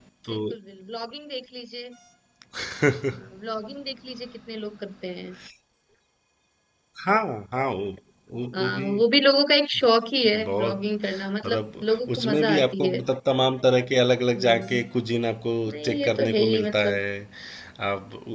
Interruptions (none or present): present